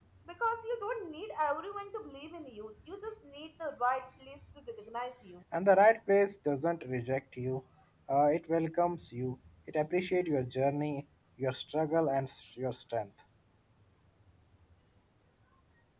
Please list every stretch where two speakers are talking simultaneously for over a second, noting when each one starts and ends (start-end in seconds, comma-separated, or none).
none